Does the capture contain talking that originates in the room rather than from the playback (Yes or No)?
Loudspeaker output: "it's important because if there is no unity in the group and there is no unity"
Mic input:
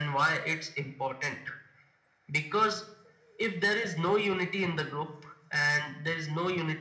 No